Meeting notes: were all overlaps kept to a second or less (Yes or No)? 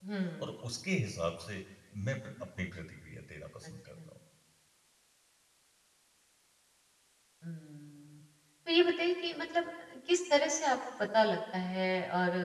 Yes